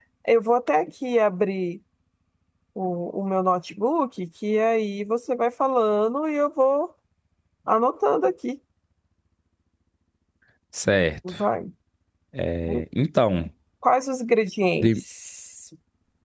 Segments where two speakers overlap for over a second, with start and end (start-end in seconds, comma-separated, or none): none